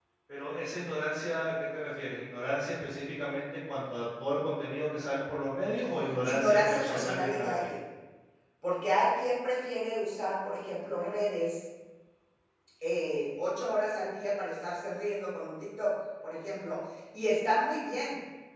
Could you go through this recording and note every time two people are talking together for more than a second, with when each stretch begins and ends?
6.2-7.7

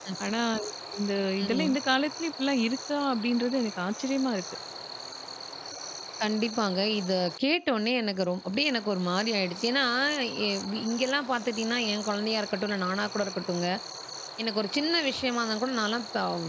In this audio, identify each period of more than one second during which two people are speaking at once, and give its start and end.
none

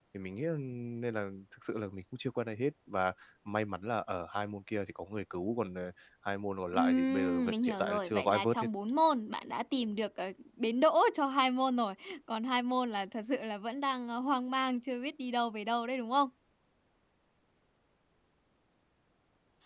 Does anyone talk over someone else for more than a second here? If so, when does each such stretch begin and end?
6.7-8.7

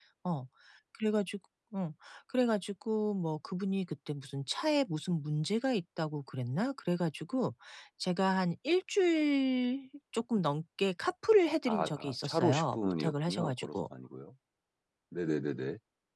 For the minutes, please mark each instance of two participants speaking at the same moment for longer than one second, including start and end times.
11.6-13.7

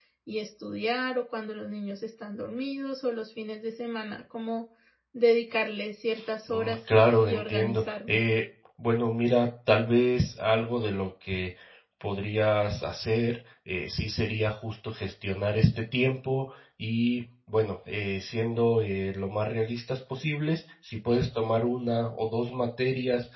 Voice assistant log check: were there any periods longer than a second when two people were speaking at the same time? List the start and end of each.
6.5-8.2

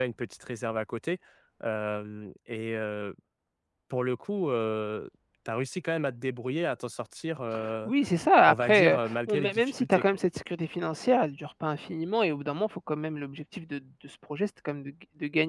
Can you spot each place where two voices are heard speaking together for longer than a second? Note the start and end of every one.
8.5-10.2

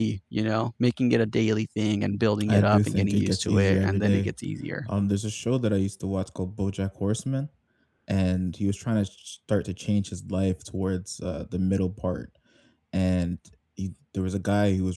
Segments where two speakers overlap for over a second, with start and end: 2.5-4.3

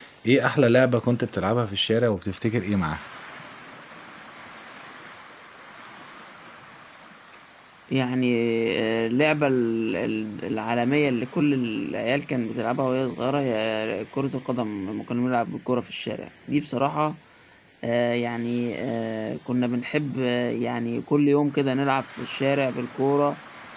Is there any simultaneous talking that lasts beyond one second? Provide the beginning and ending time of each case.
none

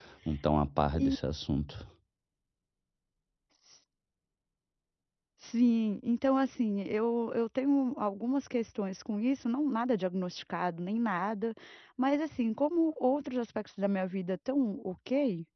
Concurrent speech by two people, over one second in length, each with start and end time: none

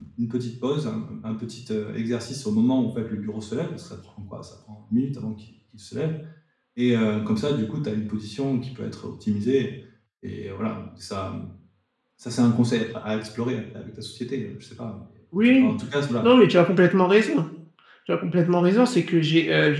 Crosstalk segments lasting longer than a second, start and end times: none

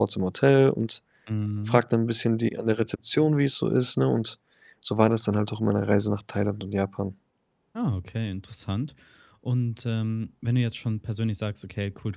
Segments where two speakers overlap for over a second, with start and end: none

